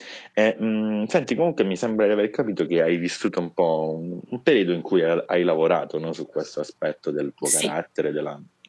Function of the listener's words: listening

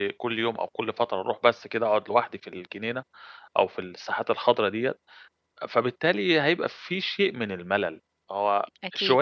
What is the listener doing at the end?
listening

